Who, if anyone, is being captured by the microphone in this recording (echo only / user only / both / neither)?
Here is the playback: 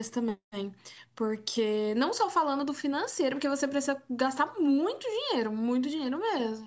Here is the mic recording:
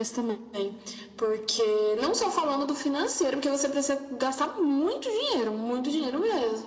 echo only